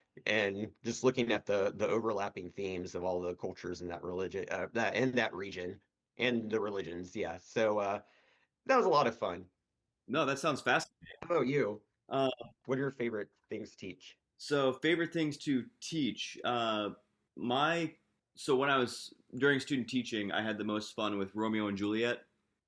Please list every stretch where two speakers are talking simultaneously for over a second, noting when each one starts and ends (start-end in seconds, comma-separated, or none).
none